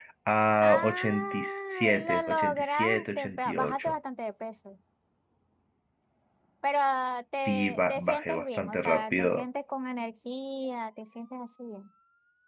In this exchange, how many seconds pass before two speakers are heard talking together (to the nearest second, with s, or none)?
1 s